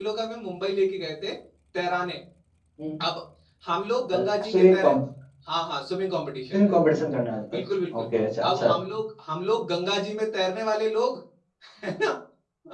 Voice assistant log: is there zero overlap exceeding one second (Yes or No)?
Yes